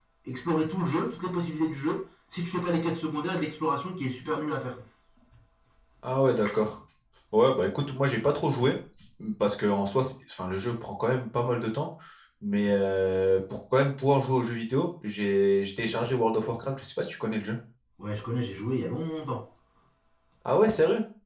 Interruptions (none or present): none